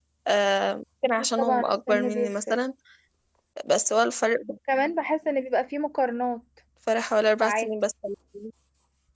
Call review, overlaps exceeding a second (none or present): present